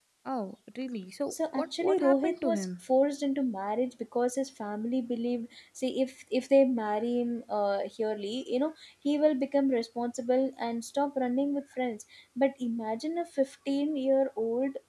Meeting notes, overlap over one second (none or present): present